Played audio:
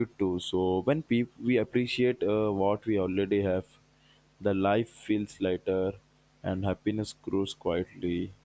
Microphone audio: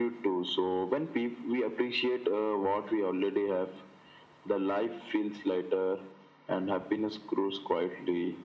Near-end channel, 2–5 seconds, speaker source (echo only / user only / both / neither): echo only